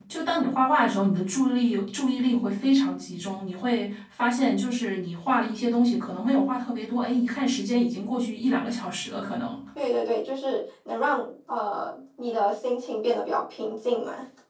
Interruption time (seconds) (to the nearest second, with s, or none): none